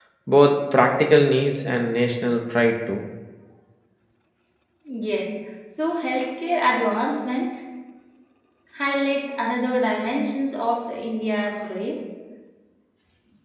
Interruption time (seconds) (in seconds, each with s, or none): none